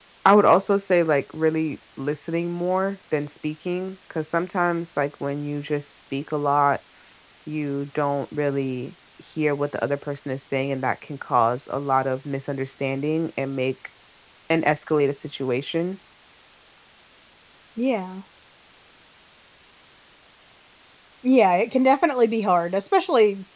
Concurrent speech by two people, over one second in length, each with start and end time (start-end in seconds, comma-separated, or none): none